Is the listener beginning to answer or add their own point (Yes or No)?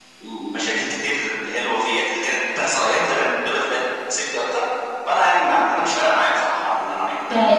Yes